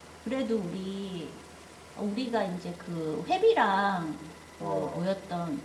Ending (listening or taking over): listening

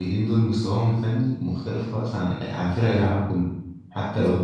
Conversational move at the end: listening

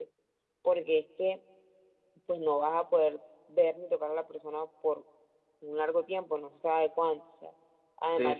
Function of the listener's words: listening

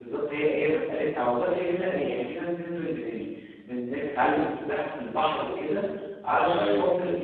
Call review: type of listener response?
listening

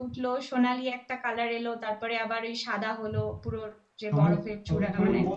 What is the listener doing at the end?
taking over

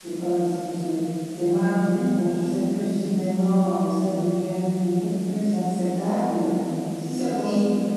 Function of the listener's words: listening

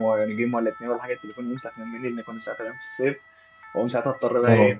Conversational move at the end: listening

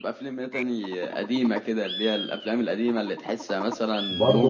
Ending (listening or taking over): taking over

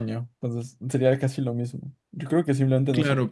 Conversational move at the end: taking over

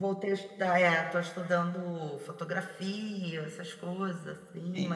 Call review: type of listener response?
listening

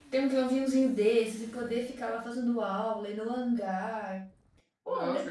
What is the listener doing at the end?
taking over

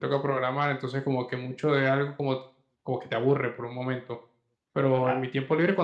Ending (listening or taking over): listening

